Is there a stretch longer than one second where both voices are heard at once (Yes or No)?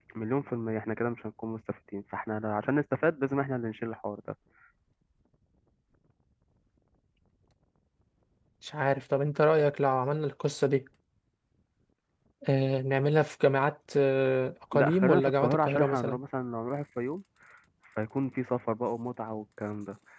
Yes